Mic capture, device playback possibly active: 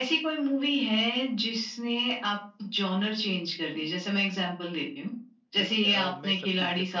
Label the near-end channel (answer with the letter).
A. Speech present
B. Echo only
A